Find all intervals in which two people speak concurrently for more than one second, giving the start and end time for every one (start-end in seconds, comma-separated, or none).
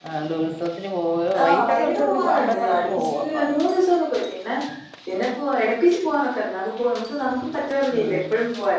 1.4-3.5